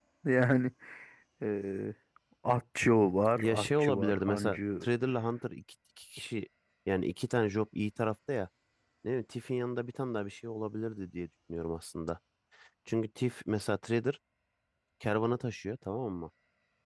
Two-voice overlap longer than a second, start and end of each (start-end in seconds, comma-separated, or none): 3.4-4.8